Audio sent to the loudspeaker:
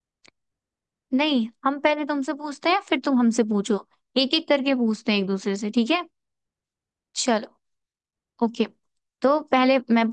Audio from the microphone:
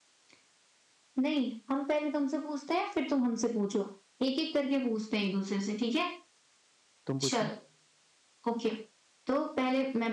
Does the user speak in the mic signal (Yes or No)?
Yes